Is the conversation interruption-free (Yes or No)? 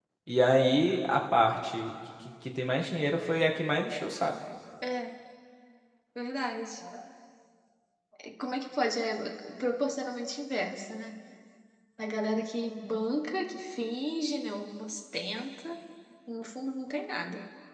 Yes